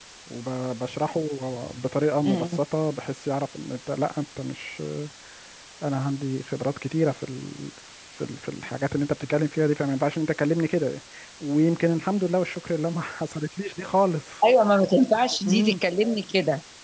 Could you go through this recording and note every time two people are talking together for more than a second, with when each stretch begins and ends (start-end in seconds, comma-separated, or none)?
none